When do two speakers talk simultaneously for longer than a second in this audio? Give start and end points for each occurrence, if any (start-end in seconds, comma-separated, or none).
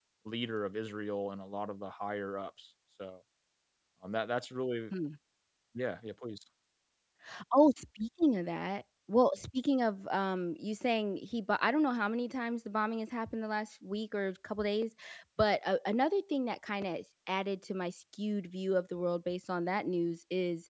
none